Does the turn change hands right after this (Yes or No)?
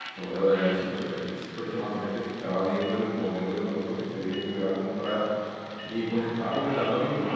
No